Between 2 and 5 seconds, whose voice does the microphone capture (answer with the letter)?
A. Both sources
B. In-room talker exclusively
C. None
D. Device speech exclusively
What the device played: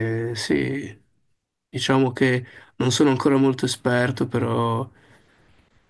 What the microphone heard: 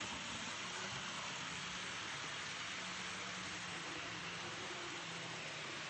C